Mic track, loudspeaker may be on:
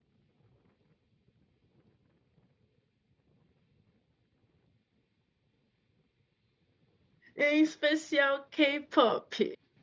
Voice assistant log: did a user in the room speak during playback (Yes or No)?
Yes